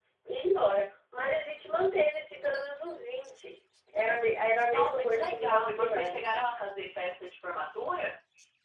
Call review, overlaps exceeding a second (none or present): present